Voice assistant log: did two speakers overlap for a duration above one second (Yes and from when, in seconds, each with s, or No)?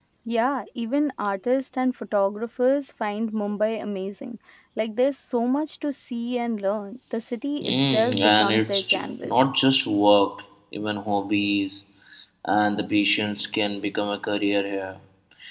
Yes, from 7.6 s